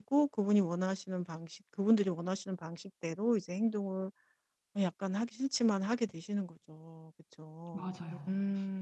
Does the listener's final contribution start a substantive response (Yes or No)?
No